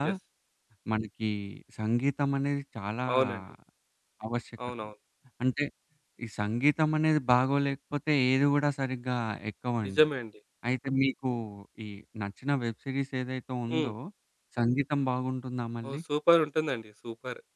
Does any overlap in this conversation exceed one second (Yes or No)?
No